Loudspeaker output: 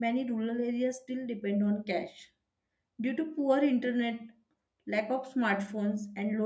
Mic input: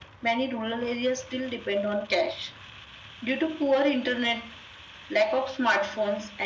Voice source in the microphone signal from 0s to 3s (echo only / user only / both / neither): echo only